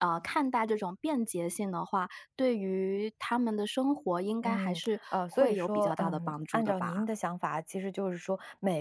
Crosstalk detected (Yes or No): Yes